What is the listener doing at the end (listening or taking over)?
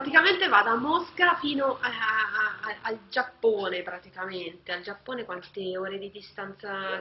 taking over